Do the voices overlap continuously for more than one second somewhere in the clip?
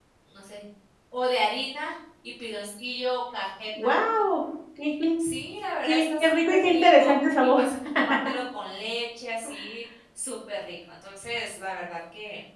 Yes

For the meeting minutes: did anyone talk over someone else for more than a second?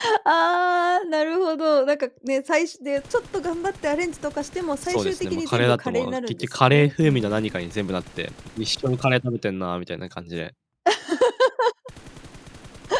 Yes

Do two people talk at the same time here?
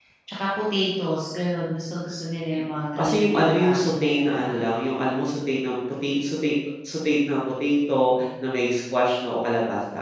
Yes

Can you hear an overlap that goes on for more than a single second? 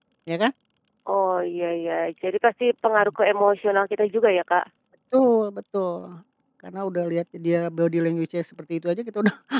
No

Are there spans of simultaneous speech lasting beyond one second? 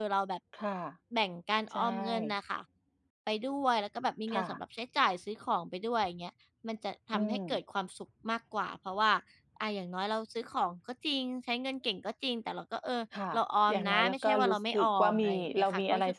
Yes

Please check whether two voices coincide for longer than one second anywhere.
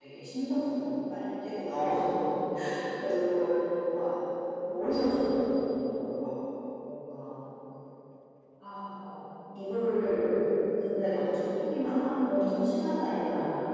No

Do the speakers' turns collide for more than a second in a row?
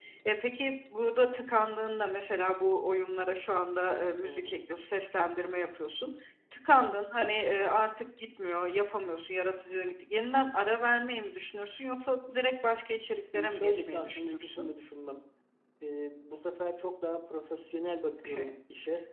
Yes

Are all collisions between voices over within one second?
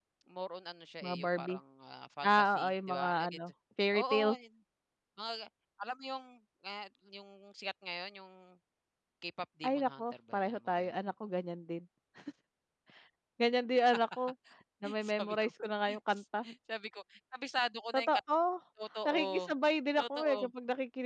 No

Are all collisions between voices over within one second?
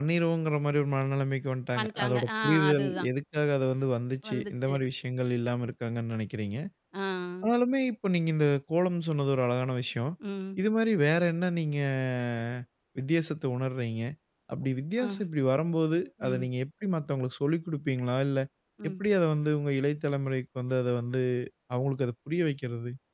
No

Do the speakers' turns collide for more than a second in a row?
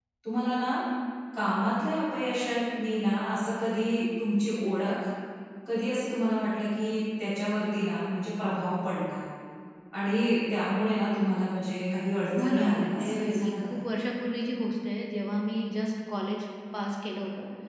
Yes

